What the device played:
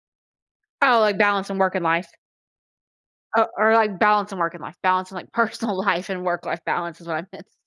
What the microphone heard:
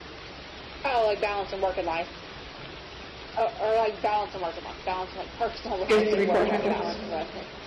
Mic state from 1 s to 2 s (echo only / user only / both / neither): echo only